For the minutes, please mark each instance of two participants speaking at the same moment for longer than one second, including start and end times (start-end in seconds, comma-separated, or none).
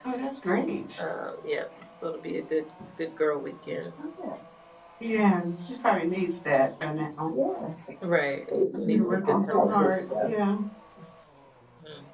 8.5-10.3